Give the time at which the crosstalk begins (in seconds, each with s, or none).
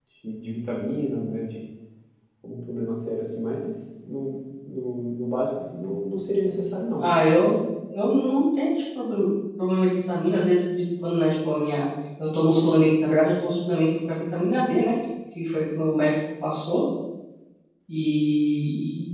none